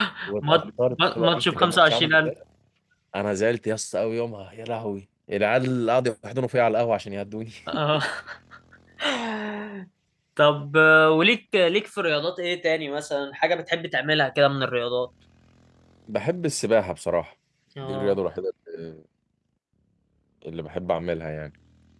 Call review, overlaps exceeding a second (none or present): present